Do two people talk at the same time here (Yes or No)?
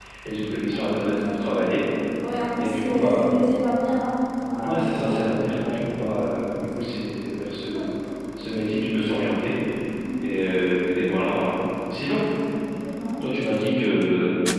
Yes